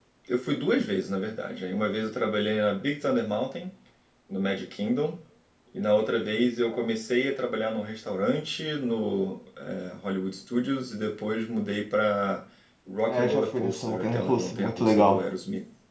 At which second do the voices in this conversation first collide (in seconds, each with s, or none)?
13.1 s